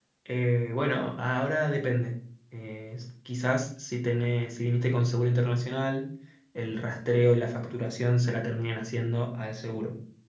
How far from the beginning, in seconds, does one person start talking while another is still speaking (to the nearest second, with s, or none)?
none